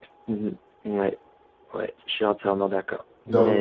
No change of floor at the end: No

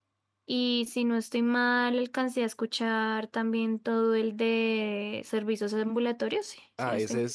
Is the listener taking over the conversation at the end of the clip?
Yes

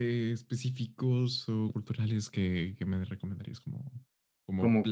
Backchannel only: Yes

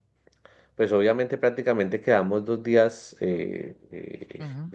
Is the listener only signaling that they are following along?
Yes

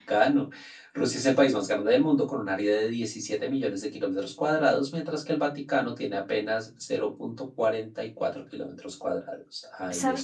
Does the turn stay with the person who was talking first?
No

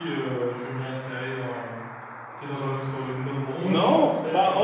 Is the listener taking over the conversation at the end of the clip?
Yes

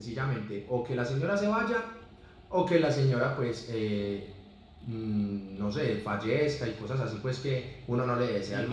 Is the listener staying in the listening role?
No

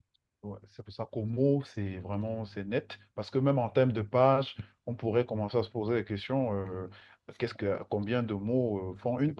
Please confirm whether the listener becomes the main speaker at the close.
Yes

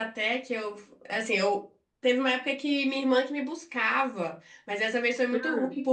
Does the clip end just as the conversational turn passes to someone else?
No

